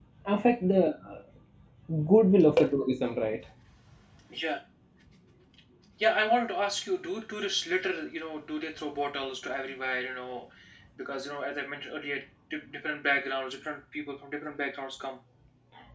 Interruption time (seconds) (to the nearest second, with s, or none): none